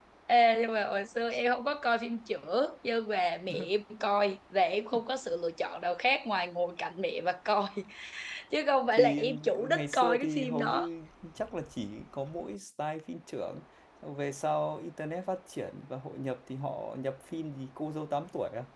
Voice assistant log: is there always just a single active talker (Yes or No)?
No